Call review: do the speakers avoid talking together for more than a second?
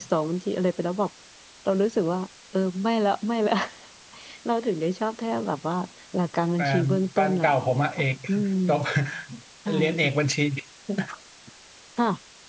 No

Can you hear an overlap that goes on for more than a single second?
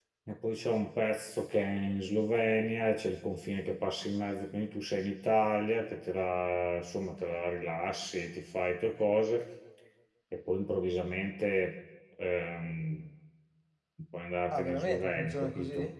Yes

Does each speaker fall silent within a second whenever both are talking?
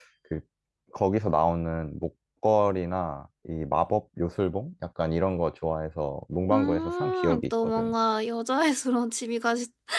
No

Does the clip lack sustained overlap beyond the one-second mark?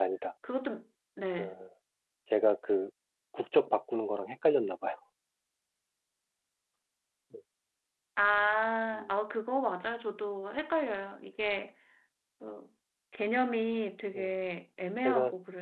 Yes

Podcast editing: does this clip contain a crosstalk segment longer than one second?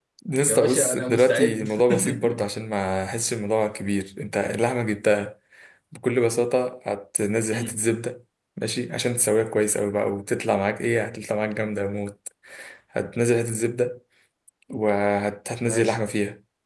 Yes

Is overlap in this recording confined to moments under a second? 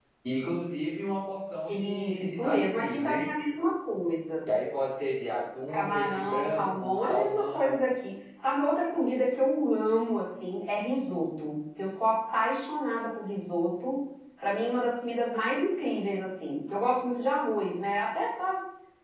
No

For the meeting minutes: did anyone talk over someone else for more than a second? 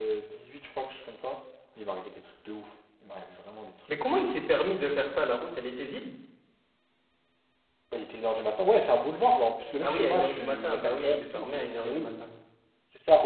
Yes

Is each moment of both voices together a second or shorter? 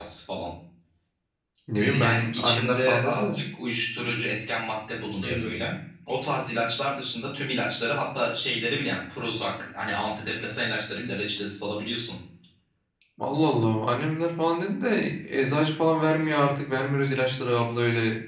No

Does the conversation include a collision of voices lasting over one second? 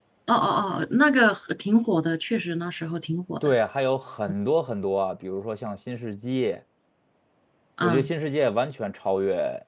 No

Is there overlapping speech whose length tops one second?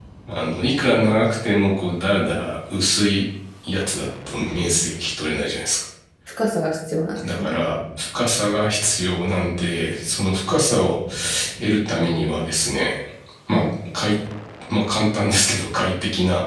No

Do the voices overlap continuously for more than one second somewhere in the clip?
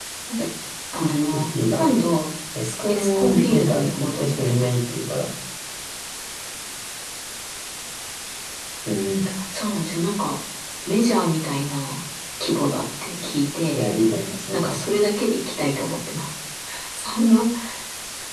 Yes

